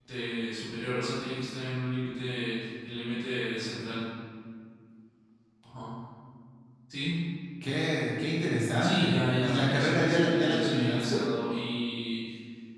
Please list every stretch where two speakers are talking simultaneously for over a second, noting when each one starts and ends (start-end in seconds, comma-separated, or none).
8.8-11.2